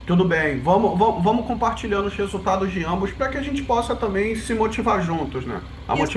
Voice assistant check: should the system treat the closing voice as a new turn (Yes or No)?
Yes